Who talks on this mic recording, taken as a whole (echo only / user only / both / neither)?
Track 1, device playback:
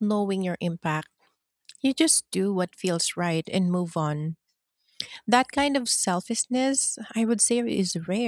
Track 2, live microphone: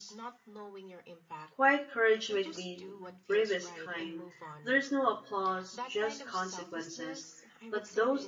both